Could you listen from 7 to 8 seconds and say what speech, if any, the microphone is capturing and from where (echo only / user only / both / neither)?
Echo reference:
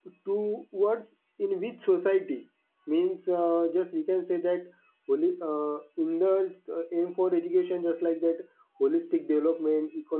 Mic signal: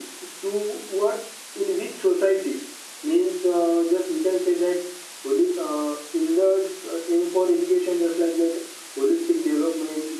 echo only